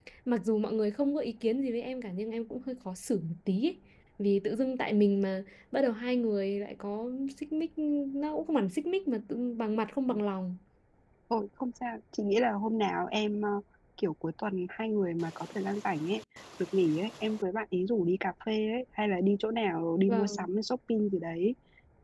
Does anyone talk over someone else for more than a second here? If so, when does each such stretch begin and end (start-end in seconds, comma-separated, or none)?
none